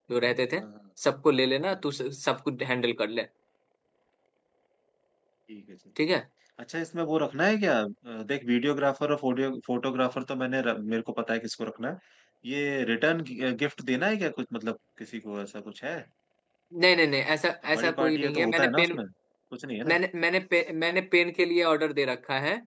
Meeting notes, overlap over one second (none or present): present